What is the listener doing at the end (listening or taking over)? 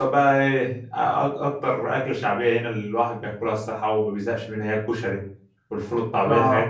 listening